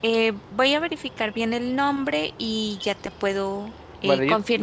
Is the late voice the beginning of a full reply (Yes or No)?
Yes